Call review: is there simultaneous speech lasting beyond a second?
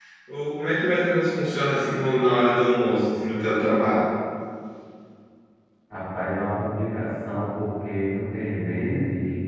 No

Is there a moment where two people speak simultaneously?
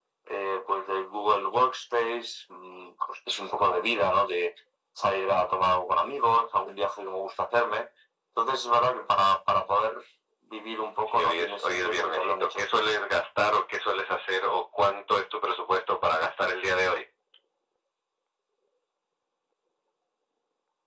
Yes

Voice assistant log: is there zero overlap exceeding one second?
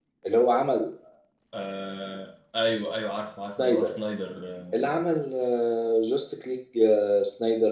Yes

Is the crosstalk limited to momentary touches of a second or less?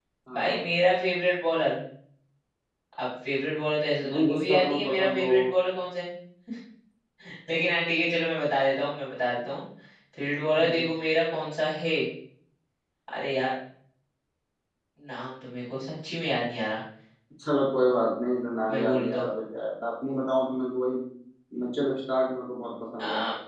No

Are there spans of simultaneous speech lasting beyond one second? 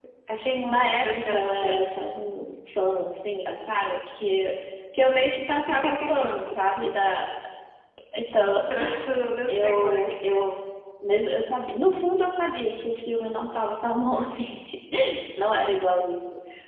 Yes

